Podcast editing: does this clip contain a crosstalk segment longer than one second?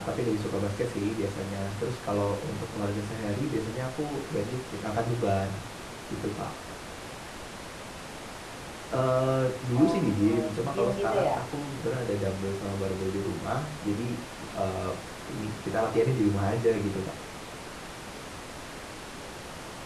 Yes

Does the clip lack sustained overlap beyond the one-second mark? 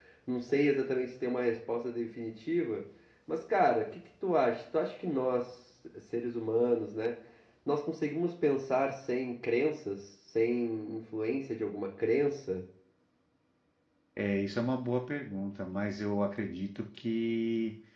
Yes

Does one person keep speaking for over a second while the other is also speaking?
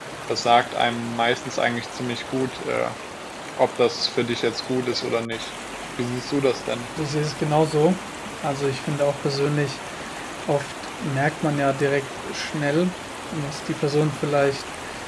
No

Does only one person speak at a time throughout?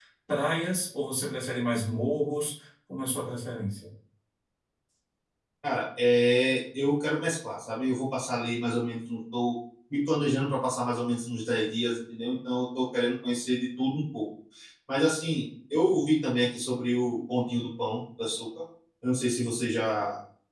Yes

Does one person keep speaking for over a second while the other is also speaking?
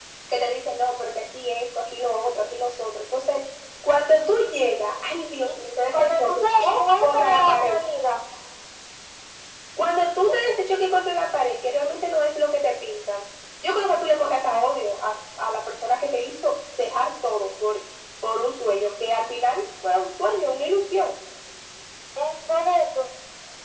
Yes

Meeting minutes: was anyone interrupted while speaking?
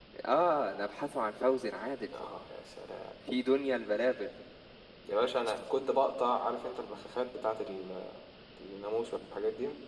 No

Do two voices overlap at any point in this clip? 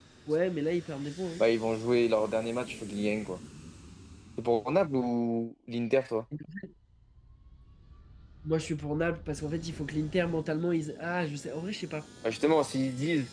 No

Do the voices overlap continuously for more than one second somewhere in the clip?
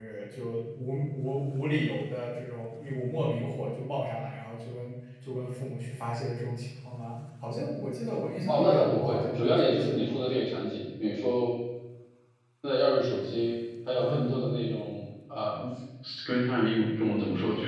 Yes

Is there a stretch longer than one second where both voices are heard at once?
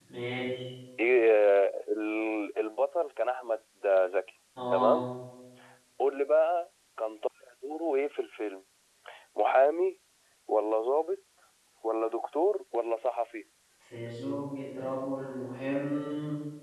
No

